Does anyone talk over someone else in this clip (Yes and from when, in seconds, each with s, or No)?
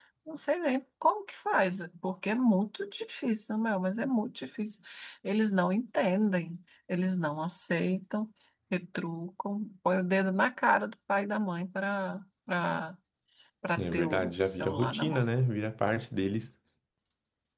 Yes, from 13.8 s